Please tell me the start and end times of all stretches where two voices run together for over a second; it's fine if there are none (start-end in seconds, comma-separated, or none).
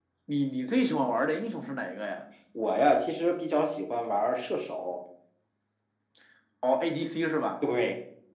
none